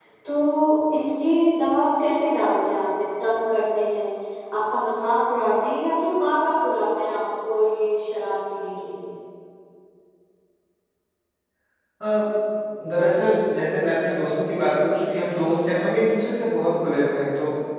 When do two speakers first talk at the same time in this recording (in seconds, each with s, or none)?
none